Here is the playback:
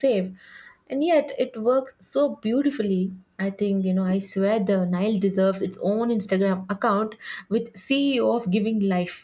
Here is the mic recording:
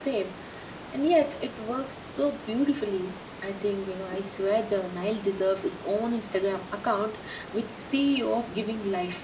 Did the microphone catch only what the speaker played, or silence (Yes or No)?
Yes